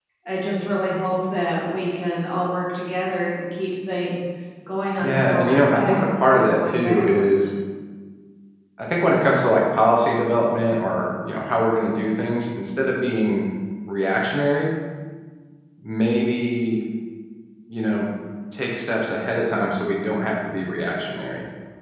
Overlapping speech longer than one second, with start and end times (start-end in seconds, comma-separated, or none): 5.0-7.5